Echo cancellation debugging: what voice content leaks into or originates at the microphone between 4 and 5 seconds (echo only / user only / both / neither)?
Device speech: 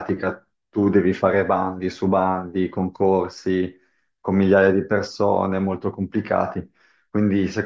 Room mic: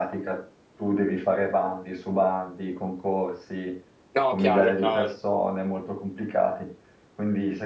both